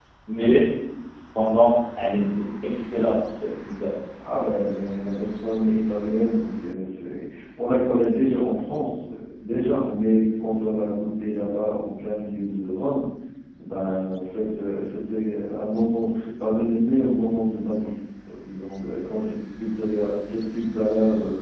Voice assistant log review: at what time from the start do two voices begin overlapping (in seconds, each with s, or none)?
none